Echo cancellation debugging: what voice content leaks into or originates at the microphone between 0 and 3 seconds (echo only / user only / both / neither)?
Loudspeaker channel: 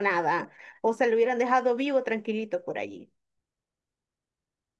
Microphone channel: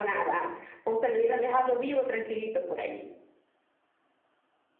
echo only